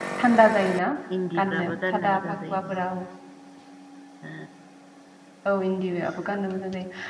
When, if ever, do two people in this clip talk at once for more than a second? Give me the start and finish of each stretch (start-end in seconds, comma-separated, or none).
1.4-2.7